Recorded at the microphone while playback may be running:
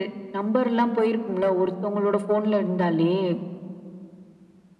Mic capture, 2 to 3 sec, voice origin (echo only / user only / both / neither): echo only